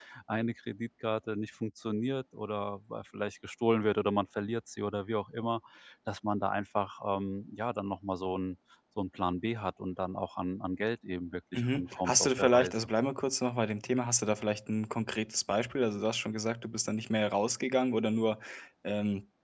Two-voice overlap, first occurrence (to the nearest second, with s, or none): 12 s